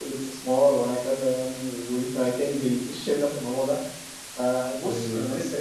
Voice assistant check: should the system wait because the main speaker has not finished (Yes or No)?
Yes